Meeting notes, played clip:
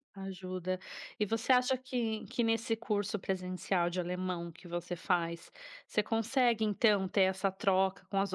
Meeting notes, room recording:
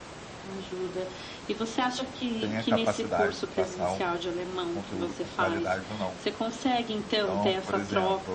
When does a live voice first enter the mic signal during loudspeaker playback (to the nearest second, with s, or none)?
2 s